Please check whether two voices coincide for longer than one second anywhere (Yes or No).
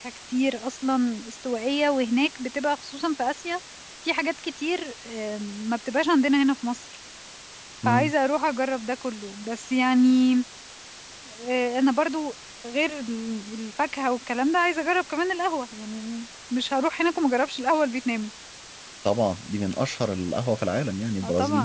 No